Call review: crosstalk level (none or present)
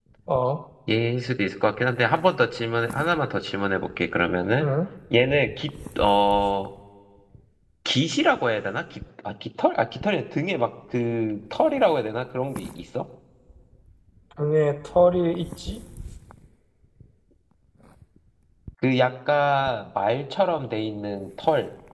none